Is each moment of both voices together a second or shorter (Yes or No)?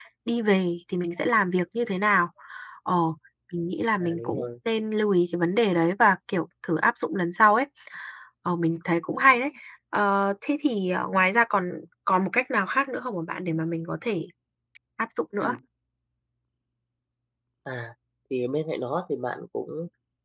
Yes